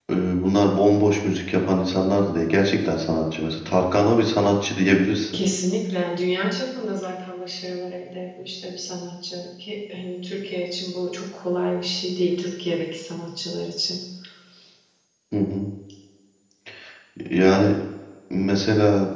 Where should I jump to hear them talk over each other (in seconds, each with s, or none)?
none